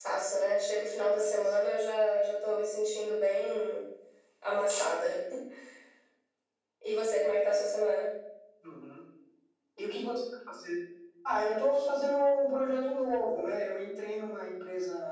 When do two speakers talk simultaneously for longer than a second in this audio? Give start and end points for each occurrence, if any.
none

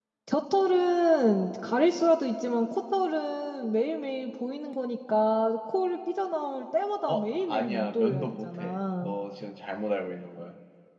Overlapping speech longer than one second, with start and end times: 7.1-9.1

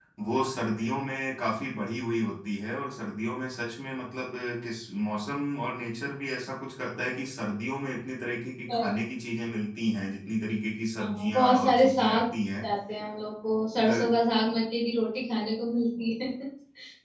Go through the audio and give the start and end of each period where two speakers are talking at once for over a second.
11.0-12.2

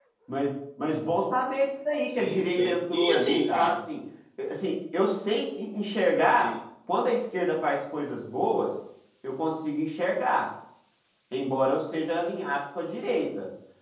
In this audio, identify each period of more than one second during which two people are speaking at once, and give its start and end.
2.1-3.8

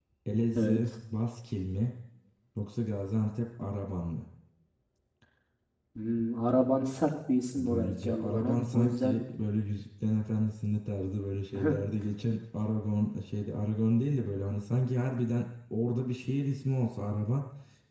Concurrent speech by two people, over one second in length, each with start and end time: 7.6-9.2

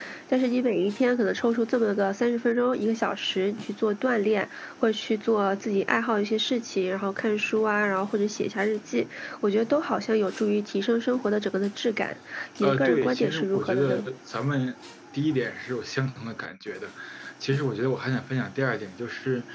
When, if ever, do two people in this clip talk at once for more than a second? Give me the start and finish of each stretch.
12.6-14.0

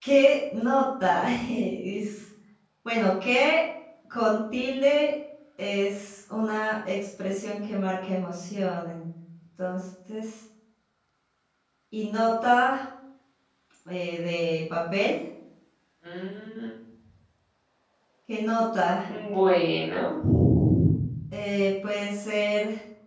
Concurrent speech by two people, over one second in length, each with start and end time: none

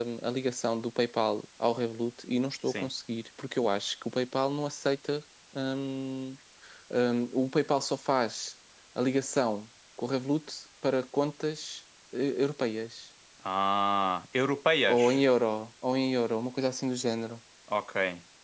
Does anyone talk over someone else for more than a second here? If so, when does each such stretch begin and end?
none

